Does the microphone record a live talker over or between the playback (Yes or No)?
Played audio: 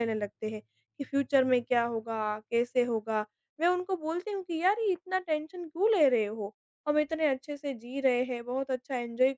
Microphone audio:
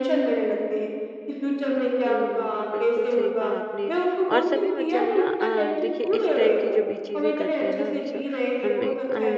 Yes